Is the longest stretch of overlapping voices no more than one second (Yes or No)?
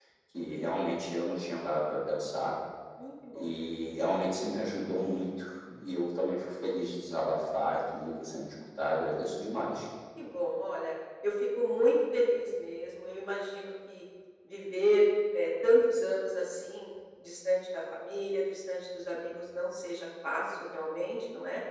Yes